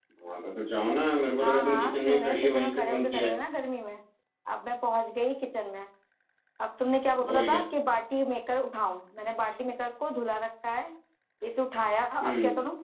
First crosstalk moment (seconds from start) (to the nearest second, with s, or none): 1 s